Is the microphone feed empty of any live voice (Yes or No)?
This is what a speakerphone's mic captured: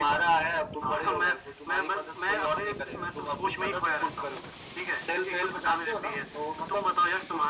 Yes